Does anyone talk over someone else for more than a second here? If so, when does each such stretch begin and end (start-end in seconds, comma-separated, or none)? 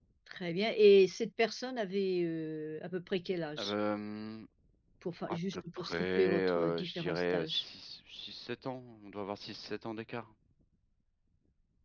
5.3-7.6